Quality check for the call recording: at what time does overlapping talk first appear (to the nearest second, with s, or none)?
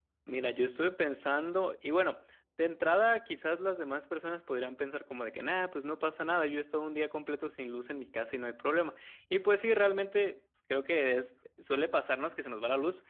none